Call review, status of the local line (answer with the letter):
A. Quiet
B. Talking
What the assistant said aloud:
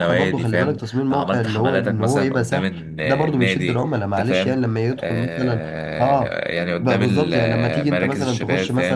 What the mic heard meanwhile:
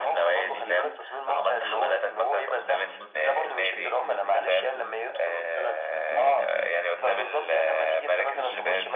B